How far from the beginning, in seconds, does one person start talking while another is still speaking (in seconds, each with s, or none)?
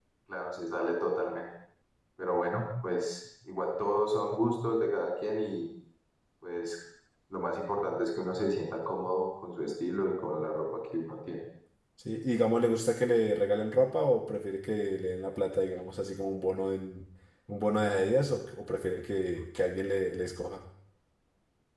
none